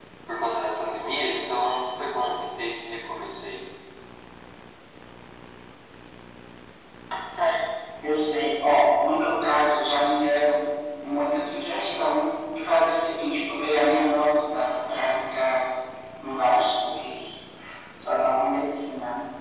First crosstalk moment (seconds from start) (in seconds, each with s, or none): none